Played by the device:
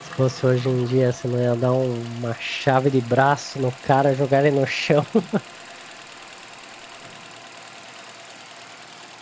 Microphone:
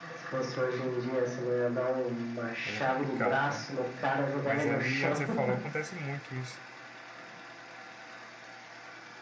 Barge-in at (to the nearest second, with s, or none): 3 s